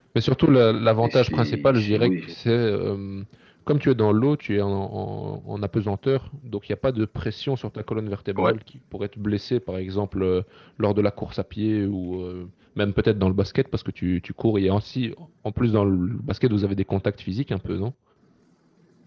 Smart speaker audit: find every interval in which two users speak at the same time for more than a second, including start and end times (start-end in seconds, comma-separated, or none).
1.0-2.3